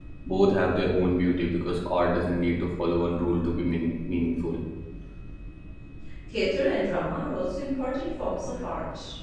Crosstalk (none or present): none